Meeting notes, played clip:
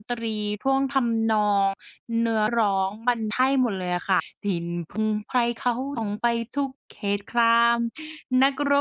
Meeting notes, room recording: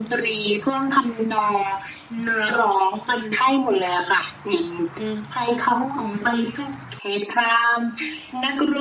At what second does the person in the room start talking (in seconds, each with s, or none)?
none